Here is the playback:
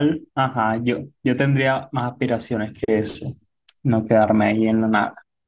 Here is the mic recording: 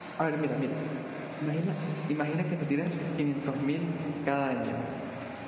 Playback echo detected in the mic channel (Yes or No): No